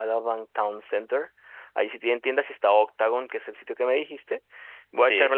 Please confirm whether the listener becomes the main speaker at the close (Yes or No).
No